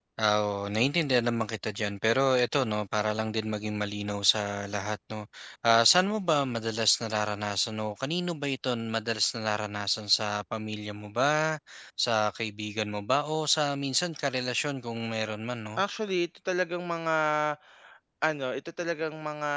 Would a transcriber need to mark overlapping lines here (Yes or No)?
No